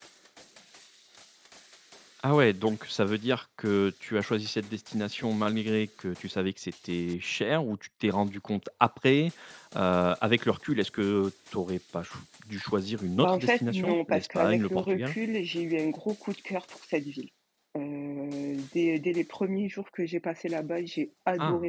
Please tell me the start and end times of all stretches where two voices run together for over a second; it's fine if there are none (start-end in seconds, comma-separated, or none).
13.2-15.2